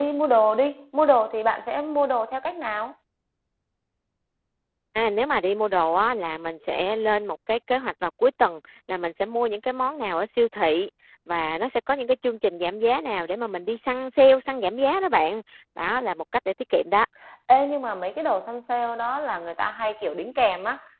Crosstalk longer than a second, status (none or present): none